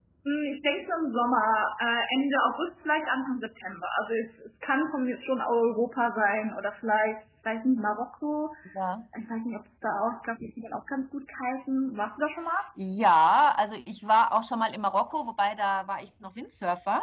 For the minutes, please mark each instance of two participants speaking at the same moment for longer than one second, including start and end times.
none

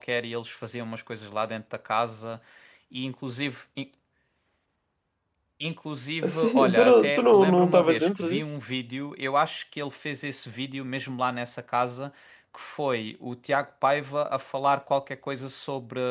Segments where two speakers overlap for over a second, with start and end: 6.2-8.4

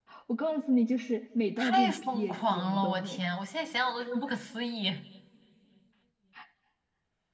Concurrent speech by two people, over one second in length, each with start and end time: 1.6-3.2

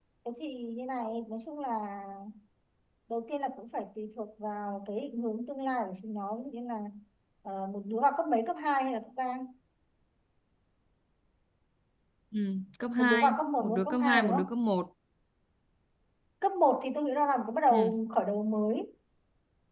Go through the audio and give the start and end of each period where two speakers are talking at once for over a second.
13.0-14.4

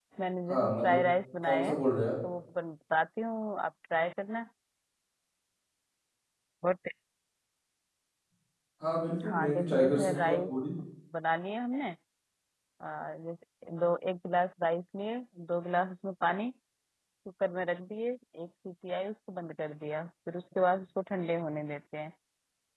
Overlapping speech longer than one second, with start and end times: 9.2-10.5

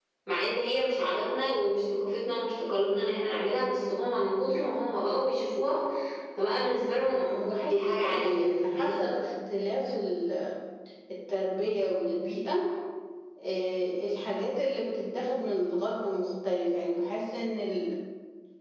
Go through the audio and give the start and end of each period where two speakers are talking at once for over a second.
7.0-9.0

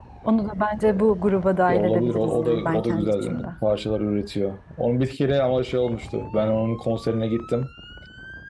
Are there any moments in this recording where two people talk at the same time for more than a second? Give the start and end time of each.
1.7-3.5

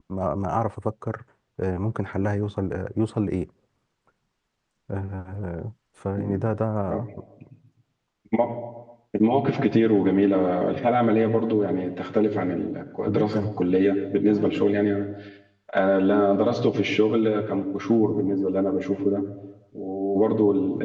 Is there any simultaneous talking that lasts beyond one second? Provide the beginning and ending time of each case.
none

